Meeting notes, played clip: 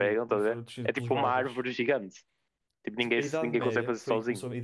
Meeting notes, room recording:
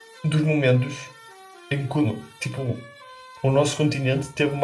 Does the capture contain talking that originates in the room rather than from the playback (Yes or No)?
Yes